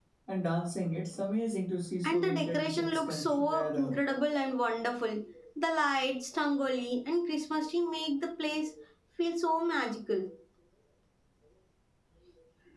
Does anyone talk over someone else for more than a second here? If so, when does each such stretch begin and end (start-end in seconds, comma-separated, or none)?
2.0-3.9